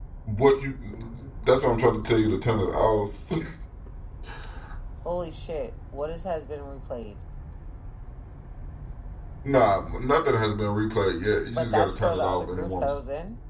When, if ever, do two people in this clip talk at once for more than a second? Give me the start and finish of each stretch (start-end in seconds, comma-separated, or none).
11.5-12.9